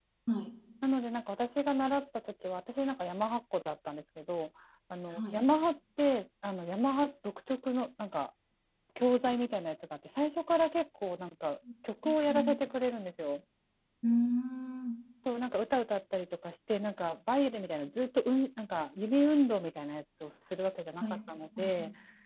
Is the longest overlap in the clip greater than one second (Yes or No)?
No